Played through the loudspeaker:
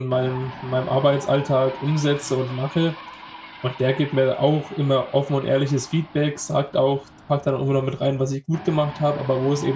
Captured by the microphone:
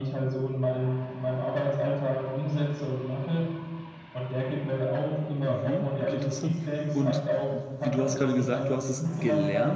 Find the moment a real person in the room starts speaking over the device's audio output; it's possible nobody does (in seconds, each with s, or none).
5.5 s